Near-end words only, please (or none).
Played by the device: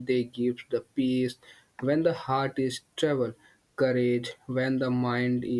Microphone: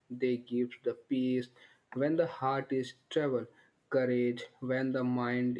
none